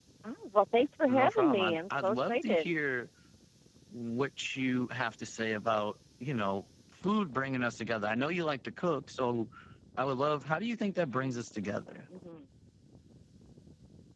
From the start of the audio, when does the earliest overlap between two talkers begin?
1.1 s

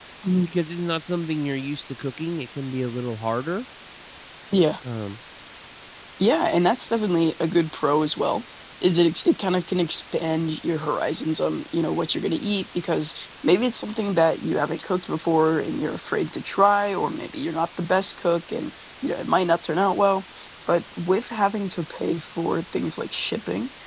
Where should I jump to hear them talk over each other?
none

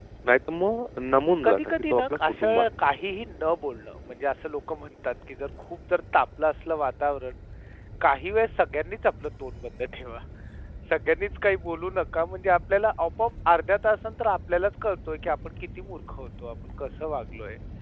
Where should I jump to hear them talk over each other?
1.4 s

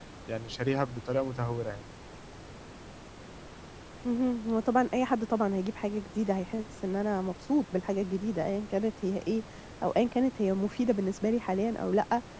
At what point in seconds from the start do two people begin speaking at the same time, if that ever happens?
none

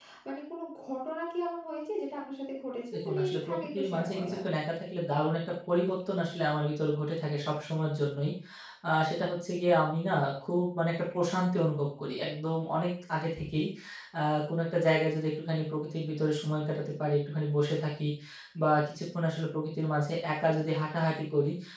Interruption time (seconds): 2.9 s

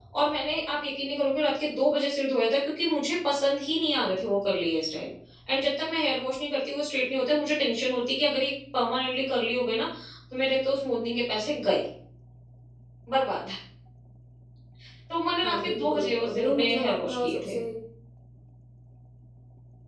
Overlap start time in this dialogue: 15.4 s

